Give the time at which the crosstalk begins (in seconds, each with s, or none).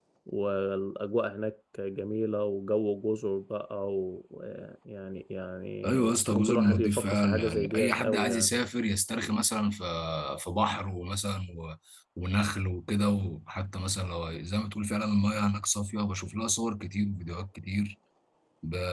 5.8 s